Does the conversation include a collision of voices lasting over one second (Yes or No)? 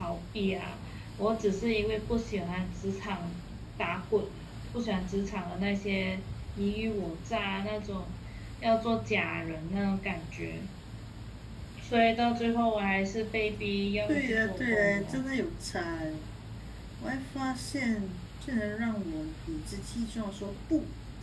Yes